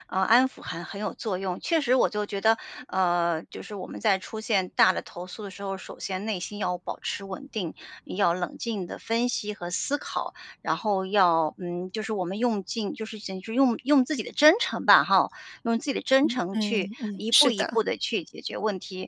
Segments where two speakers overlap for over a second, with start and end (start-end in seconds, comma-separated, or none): 16.2-17.8